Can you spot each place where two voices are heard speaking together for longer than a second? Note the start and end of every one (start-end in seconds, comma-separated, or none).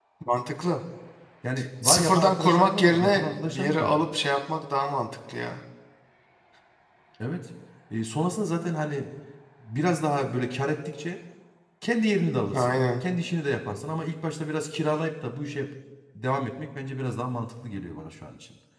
1.8-3.9